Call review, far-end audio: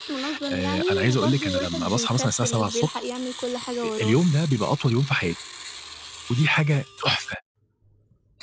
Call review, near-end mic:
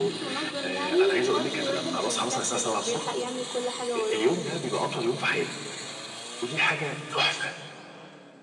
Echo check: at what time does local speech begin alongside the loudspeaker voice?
none

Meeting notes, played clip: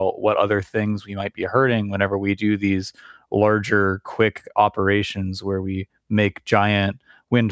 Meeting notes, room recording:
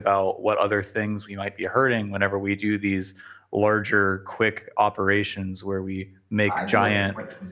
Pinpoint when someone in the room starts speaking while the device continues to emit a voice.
7 s

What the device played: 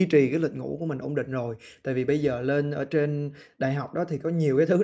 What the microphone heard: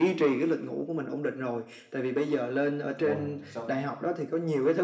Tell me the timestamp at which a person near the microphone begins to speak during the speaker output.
3 s

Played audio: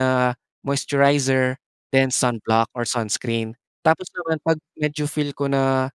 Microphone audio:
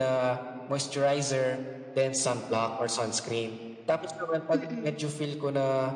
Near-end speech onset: 5 s

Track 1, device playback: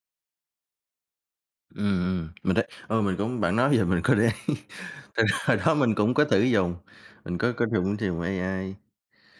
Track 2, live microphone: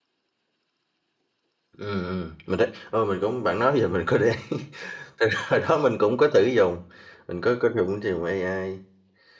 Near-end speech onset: none

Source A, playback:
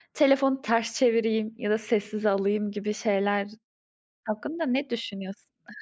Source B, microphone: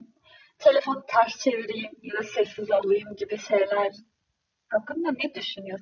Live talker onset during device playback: none

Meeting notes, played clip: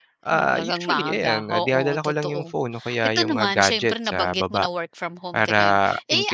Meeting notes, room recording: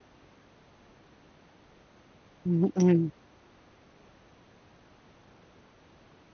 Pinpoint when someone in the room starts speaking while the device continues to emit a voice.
2 s

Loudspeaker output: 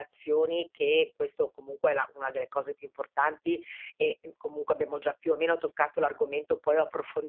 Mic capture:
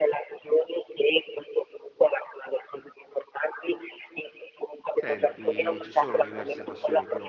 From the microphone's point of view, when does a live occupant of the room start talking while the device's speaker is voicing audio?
5 s

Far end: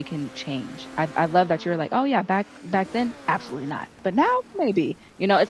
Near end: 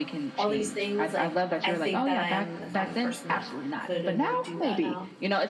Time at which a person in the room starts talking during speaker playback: 0 s

